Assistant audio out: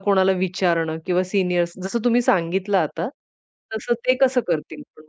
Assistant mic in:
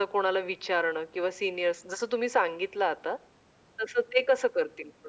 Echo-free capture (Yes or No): No